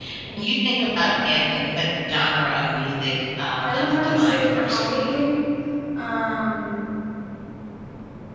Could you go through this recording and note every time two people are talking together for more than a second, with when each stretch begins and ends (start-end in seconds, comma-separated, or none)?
3.6-5.1